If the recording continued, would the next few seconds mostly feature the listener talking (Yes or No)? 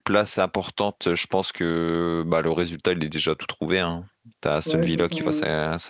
Yes